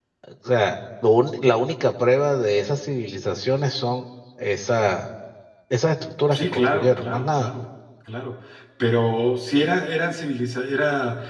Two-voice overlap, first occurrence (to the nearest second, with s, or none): 6 s